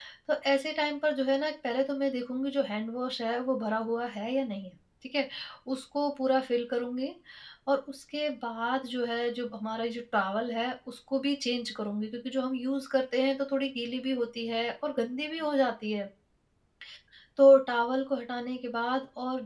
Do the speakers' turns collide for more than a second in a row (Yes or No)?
No